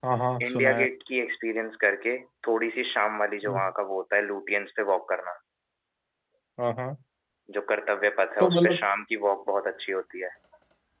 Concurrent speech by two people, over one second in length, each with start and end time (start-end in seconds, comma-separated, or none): none